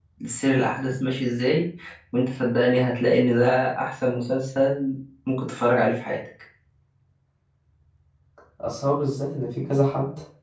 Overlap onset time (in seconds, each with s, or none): none